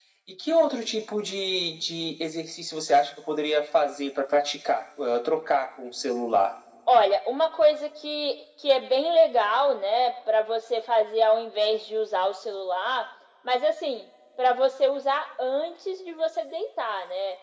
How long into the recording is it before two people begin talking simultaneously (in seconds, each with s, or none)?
none